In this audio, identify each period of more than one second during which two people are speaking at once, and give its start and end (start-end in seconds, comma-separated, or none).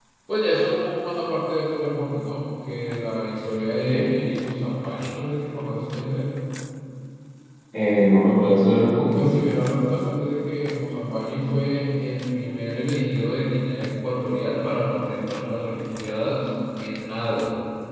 none